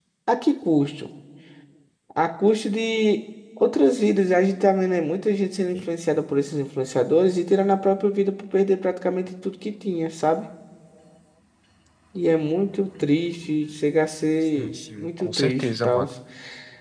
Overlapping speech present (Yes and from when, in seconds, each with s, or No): Yes, from 14.6 s